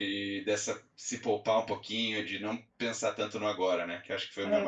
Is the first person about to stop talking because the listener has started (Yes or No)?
Yes